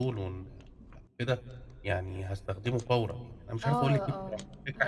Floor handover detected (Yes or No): Yes